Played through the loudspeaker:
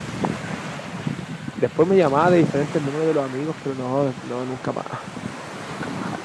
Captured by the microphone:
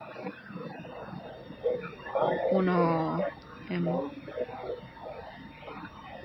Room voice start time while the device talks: 2 s

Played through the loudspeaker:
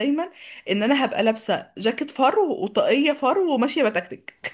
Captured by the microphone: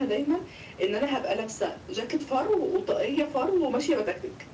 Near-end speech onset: none

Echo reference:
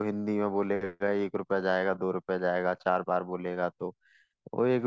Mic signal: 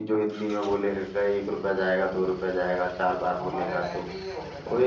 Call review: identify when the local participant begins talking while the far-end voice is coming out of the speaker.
3 s

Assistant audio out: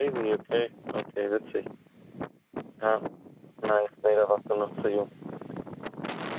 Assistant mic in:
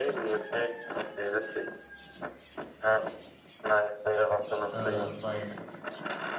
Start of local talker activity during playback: 5 s

